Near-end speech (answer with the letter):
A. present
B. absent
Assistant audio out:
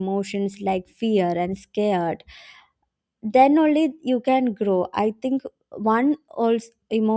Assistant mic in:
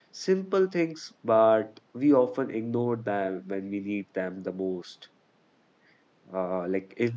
A